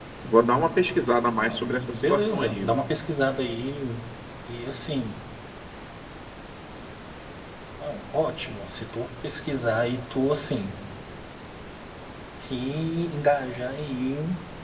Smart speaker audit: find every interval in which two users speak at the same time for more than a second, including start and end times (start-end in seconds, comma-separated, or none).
1.4-2.7